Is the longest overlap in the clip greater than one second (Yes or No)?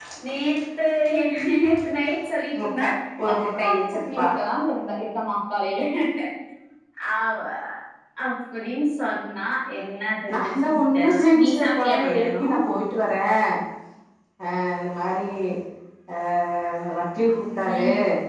Yes